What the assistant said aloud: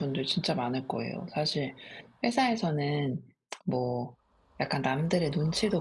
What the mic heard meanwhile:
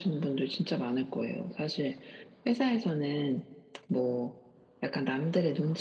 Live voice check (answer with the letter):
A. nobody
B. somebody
A